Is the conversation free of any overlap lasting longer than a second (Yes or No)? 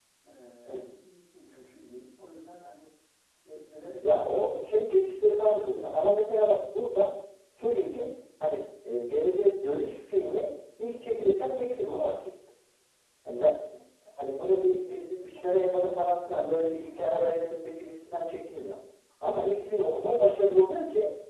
No